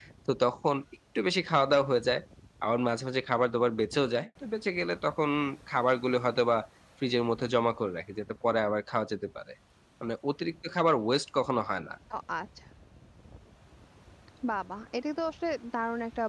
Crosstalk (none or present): none